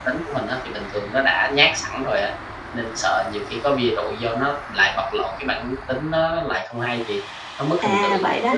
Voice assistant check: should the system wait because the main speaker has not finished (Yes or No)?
No